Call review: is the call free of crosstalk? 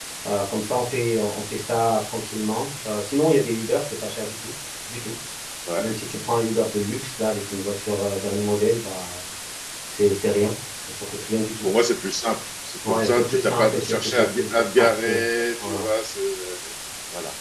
No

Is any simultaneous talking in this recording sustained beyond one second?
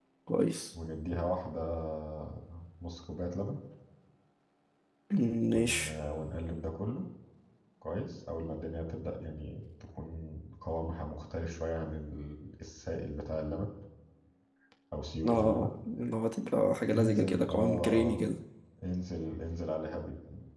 Yes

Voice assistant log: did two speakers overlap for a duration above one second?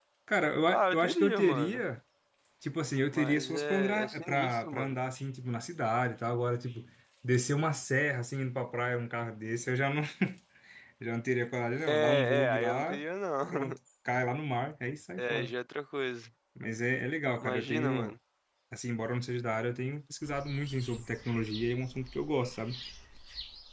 Yes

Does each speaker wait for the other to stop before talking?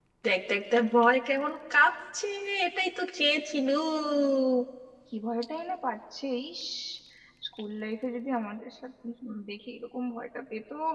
Yes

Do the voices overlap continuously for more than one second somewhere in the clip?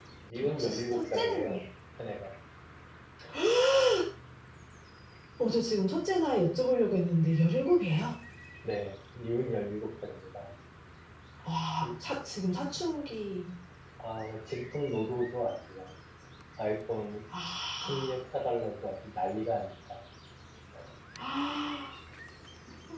Yes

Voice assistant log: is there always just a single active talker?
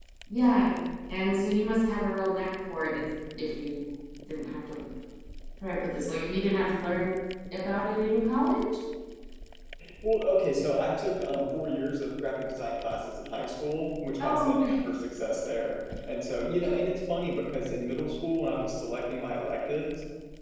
Yes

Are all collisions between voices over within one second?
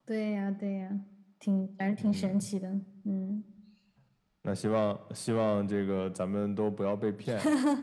Yes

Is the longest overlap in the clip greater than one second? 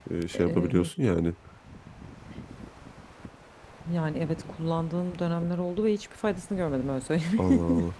No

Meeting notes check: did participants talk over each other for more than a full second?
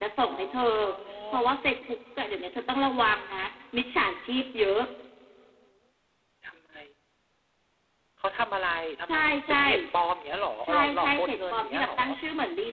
Yes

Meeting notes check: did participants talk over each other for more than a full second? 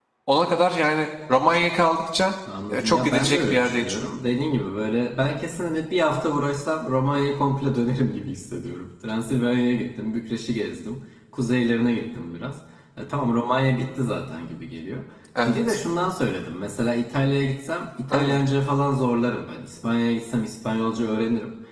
Yes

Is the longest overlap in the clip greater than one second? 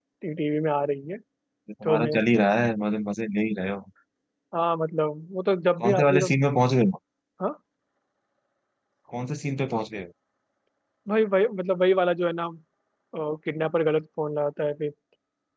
No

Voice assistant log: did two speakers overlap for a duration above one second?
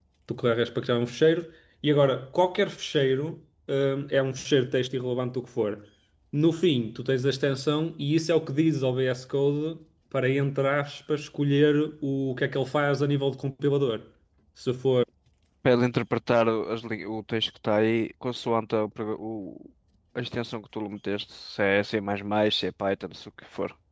No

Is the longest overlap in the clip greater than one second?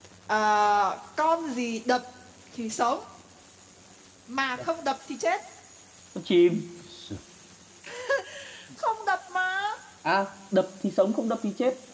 No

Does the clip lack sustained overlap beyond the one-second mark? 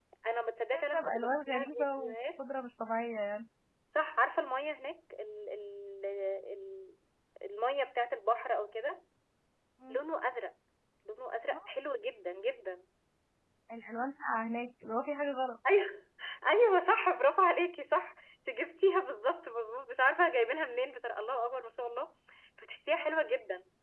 No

